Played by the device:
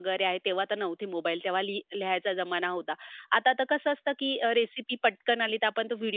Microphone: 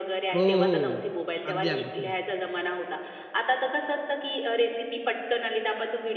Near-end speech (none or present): present